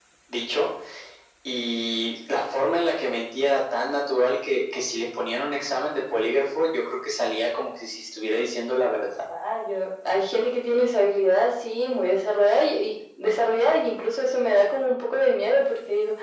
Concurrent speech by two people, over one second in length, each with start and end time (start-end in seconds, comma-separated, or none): none